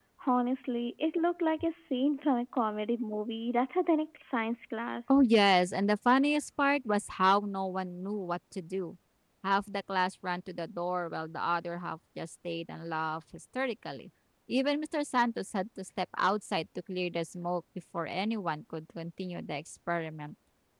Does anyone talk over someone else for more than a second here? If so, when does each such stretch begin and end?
none

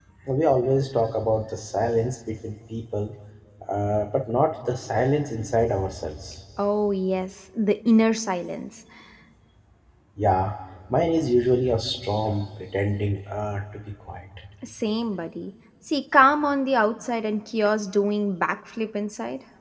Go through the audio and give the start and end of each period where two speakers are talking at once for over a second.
none

